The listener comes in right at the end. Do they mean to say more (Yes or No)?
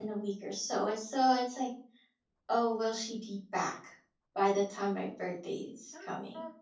Yes